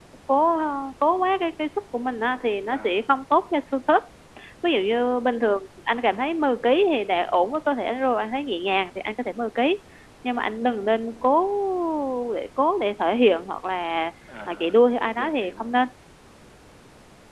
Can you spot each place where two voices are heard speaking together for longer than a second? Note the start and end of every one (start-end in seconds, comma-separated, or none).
14.5-15.7